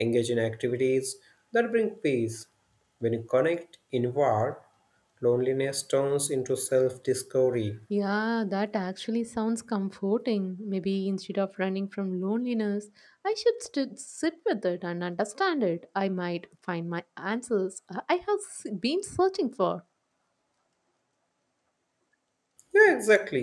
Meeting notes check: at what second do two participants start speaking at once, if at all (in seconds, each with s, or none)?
none